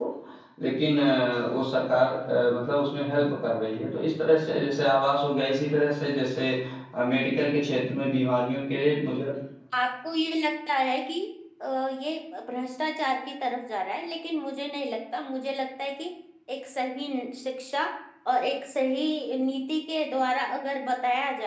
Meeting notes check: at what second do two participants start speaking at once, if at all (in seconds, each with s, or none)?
none